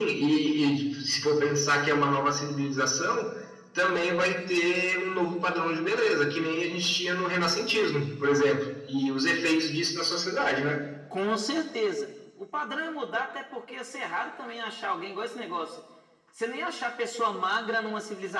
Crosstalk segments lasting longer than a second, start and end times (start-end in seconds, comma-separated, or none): none